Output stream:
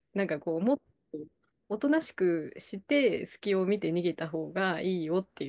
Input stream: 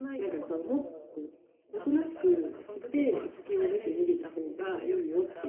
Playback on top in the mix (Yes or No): Yes